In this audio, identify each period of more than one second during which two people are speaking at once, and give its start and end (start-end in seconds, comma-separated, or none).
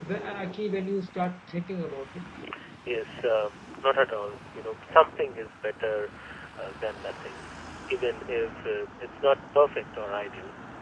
none